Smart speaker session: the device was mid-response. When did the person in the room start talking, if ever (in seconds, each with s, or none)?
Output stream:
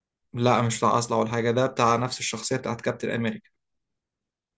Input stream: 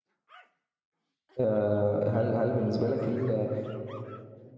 1.4 s